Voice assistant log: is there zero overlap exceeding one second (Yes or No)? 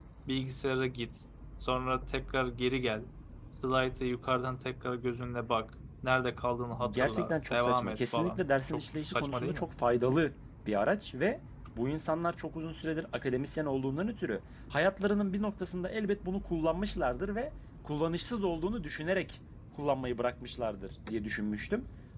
No